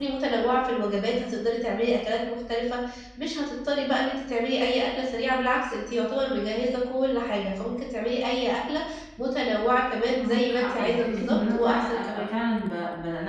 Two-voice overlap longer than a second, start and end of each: 10.2-12.3

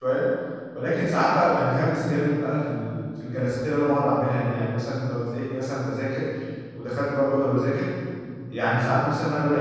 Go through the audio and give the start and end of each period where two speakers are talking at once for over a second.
none

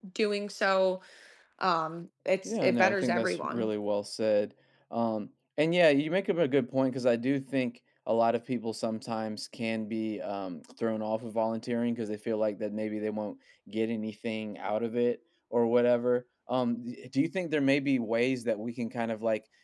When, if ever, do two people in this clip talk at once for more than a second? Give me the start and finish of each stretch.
2.5-3.7

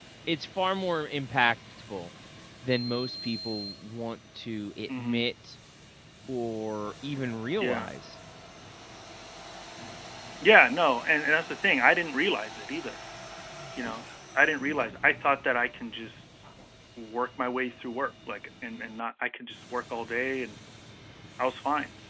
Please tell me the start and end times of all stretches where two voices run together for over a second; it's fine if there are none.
none

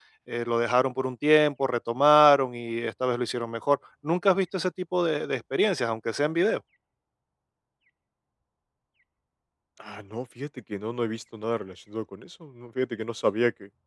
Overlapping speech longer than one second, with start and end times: none

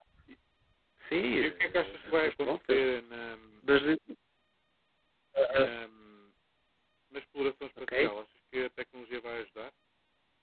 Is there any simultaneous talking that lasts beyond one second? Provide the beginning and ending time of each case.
1.4-2.8

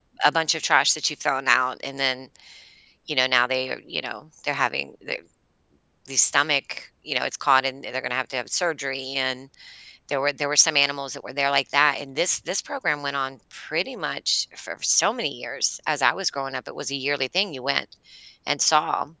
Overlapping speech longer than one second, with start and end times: none

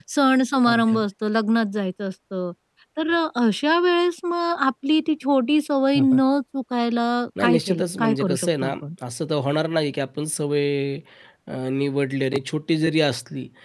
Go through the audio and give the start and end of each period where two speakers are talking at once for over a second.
7.4-8.7

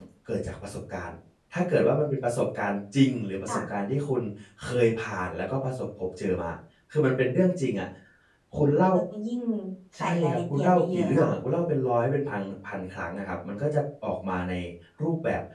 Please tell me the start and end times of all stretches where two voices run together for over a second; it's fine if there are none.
10.0-11.3

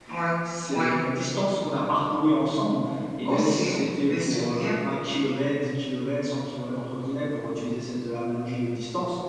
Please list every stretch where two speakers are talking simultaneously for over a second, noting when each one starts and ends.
3.2-4.7

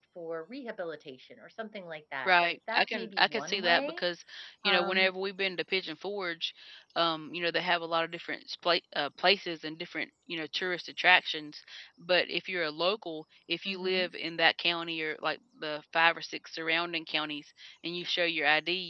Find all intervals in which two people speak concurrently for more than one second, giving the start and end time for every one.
2.2-4.0

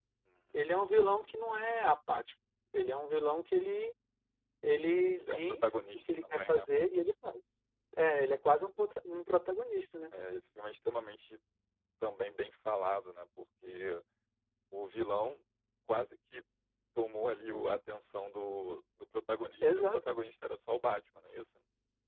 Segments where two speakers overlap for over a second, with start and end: 5.2-6.6

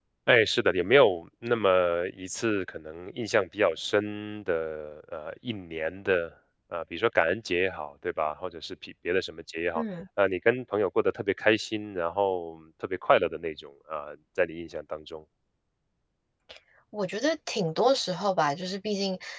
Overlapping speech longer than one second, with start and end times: none

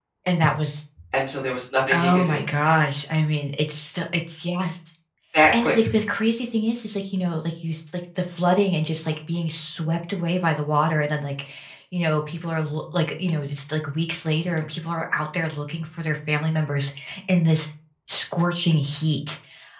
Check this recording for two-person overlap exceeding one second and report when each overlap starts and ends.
none

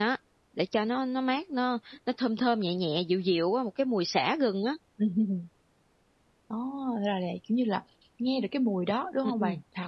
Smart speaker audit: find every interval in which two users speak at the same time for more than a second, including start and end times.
none

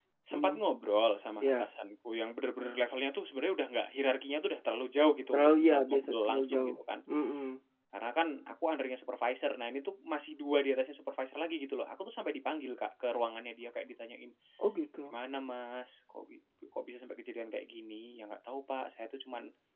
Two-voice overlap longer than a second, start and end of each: 5.3-6.8

